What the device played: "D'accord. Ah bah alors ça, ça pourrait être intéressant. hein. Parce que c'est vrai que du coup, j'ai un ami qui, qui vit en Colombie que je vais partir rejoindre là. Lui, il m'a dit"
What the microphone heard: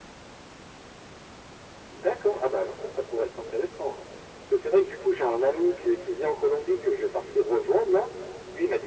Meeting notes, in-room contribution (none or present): none